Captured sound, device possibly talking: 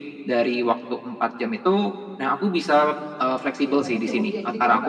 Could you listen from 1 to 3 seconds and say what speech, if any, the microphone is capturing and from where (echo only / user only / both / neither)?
echo only